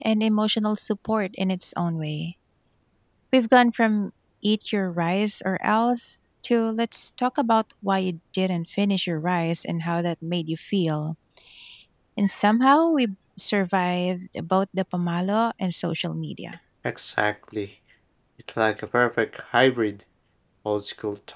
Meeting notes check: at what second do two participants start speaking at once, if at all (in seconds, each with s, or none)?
none